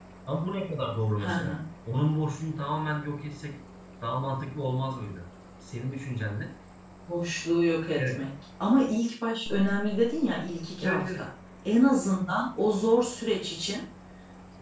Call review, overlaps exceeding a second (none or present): none